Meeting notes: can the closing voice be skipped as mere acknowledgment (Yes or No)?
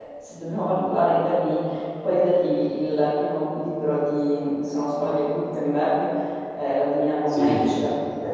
Yes